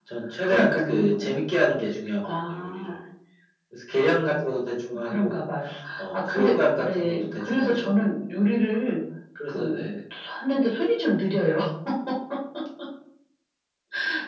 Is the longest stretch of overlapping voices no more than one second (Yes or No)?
No